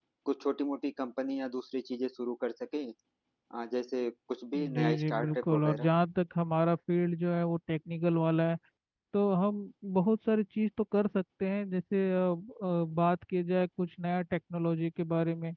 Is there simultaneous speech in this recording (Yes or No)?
Yes